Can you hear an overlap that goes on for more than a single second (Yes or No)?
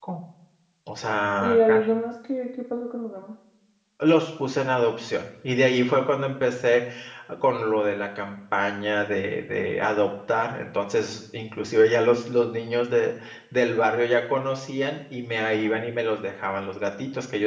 No